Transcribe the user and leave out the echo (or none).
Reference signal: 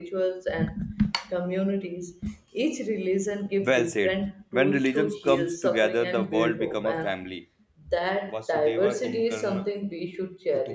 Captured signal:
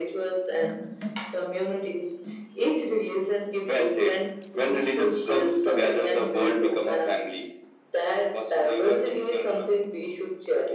none